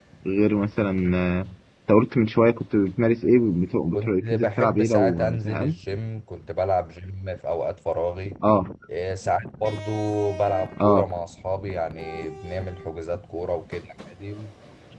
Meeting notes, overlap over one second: present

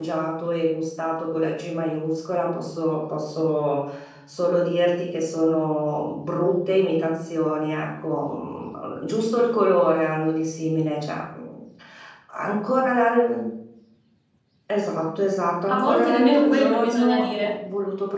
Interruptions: present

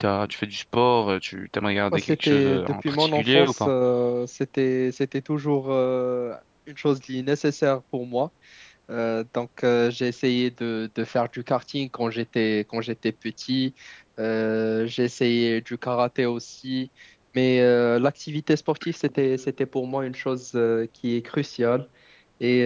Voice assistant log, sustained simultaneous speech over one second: present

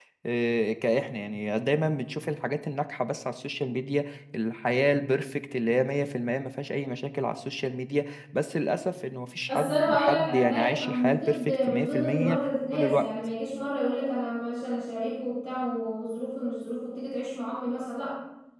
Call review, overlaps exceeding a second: present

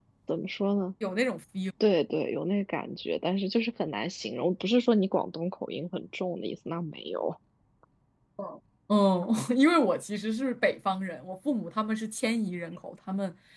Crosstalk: none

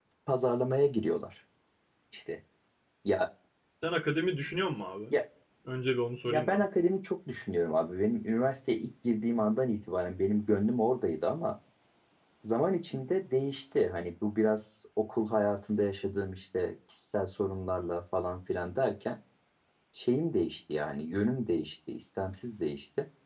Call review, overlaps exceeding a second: none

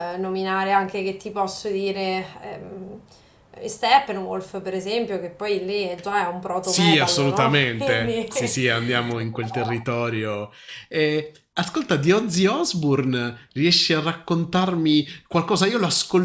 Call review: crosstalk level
present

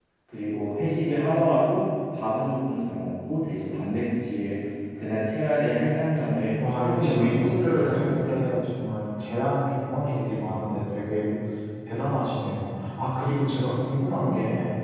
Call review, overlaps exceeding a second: present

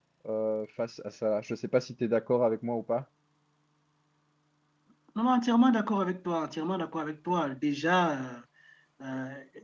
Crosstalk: none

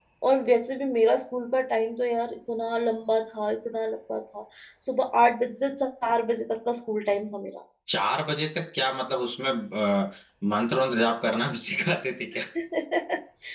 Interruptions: none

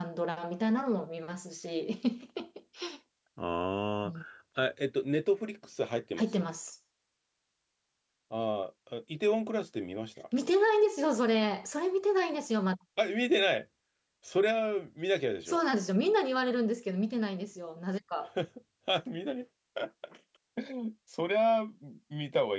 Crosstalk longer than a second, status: none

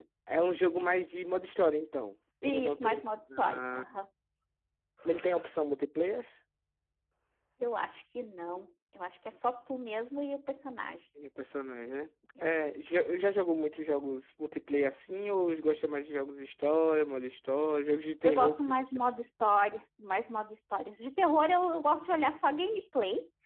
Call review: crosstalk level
present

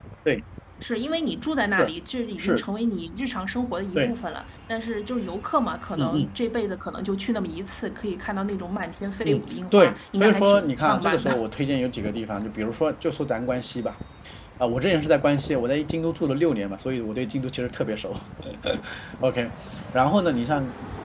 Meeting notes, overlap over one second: present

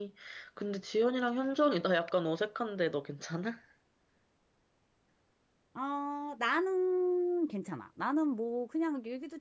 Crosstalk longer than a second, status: none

